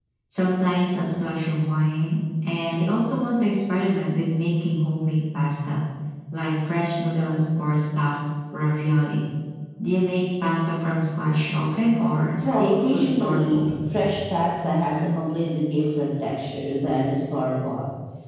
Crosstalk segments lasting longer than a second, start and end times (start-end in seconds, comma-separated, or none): 12.4-13.7